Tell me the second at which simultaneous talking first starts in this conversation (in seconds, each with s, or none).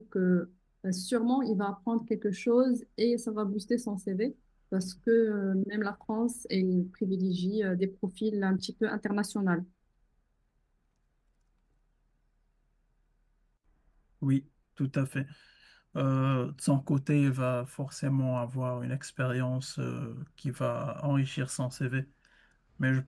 none